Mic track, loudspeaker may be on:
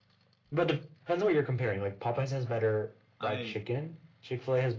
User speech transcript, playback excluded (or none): I